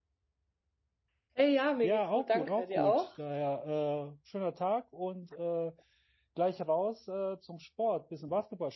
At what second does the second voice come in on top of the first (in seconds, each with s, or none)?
1.8 s